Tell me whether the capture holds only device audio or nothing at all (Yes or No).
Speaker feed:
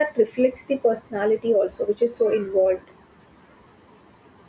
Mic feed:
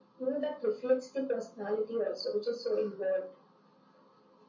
Yes